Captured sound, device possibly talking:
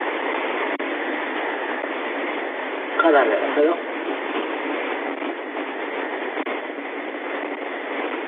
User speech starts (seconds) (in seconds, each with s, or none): 2.9 s